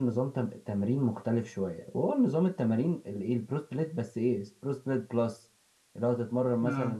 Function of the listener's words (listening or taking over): listening